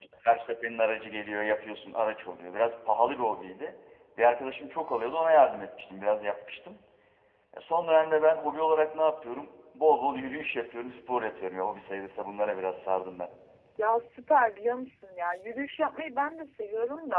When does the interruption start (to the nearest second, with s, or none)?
none